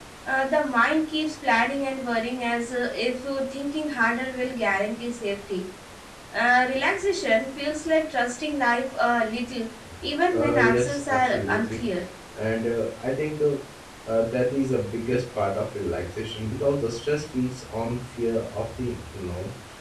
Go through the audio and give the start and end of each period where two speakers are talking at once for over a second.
10.3-11.8

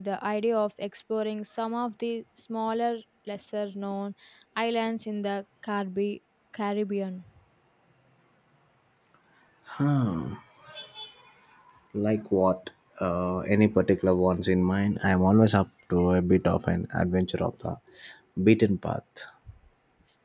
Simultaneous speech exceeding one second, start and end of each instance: none

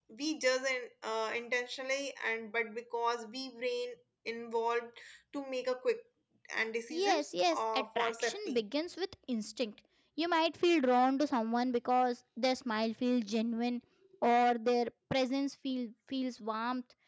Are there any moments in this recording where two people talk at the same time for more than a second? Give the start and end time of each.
6.9-8.6

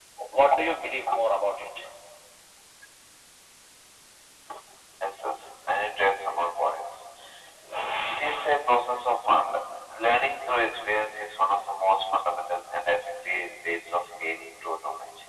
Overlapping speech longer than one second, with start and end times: none

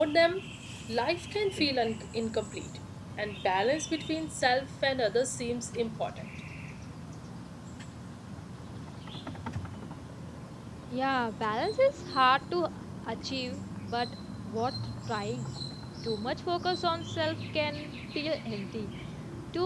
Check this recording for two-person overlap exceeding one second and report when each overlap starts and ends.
none

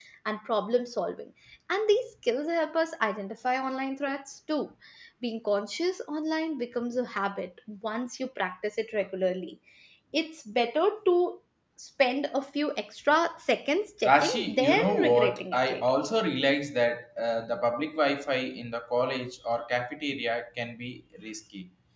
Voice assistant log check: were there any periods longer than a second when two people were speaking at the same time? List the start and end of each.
14.0-16.0

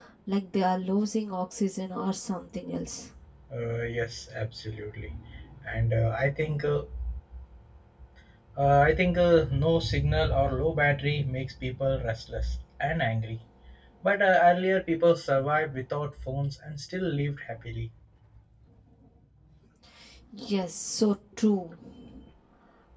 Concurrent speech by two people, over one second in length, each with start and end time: none

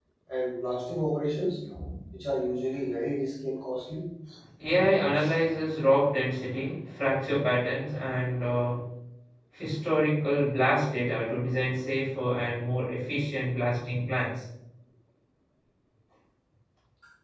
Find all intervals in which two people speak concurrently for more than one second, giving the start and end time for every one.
none

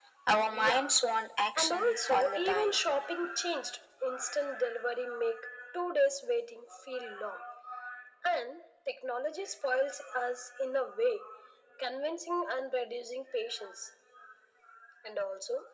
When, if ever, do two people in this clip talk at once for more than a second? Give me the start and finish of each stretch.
1.6-2.8

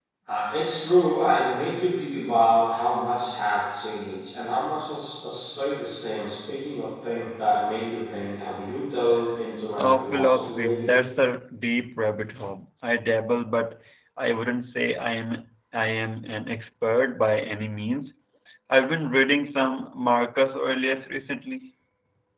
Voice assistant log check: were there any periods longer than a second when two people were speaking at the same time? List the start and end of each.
9.8-11.0

